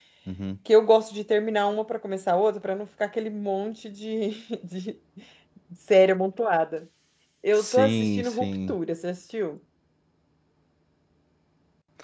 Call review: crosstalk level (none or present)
present